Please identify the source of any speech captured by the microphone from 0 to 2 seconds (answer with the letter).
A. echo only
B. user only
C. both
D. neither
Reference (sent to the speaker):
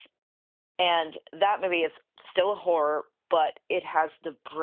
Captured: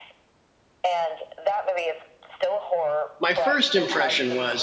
A